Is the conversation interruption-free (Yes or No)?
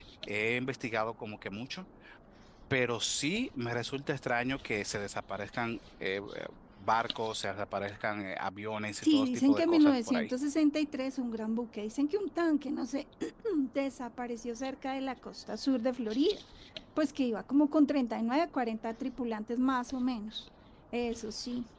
No